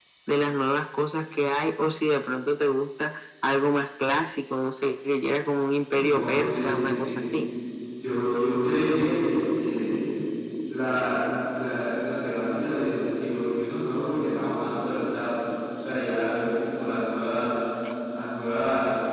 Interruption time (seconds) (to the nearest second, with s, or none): 6 s